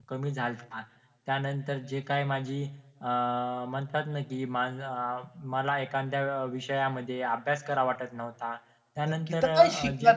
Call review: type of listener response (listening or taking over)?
taking over